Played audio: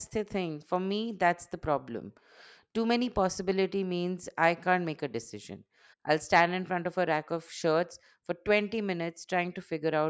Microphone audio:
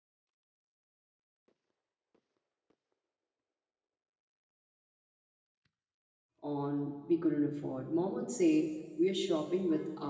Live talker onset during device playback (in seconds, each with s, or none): 6.4 s